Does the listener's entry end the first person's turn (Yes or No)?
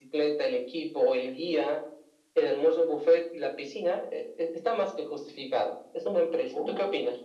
Yes